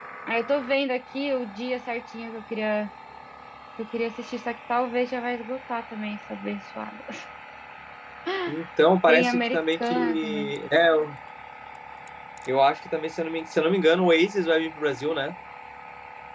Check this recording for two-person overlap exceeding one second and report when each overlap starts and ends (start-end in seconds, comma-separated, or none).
9.1-10.5